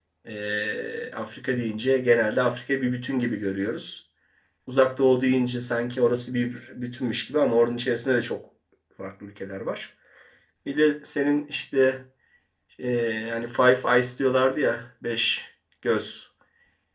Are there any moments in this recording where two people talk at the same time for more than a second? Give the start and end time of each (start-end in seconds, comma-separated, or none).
none